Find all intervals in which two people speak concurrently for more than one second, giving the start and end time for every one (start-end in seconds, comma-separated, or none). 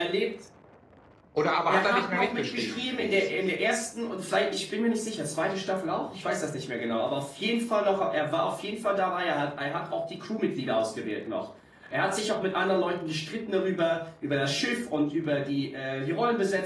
1.7-3.4